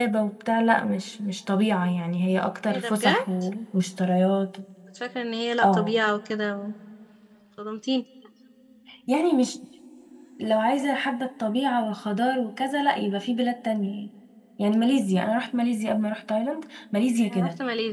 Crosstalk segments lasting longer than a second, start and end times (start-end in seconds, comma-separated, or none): none